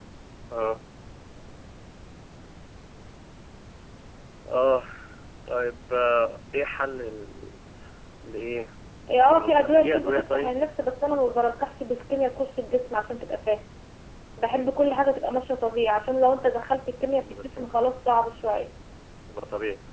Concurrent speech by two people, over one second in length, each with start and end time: 9.2-10.5

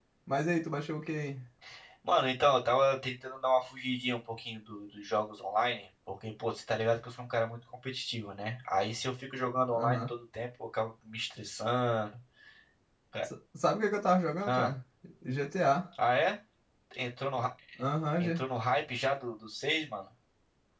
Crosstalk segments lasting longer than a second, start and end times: none

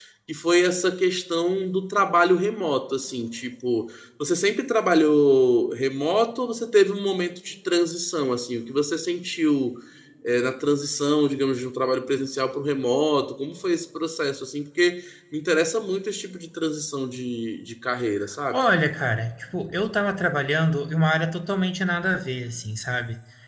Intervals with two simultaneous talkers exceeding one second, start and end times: none

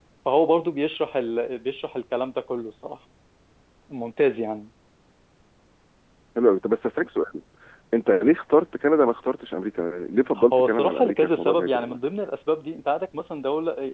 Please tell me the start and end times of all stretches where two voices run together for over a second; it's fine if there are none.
10.5-12.0

